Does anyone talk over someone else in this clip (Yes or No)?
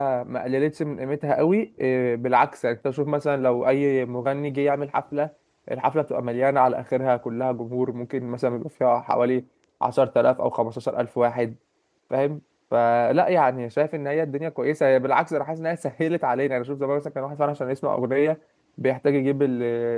No